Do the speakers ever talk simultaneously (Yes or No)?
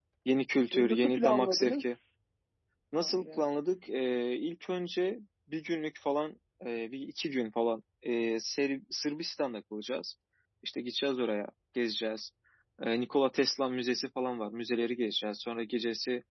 Yes